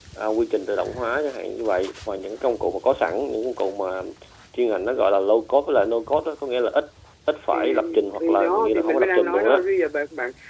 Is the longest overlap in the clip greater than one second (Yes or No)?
Yes